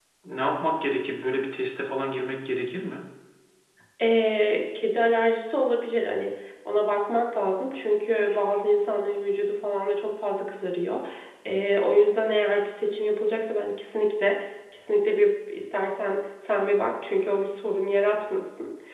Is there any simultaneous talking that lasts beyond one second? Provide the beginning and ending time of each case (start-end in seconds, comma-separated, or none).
none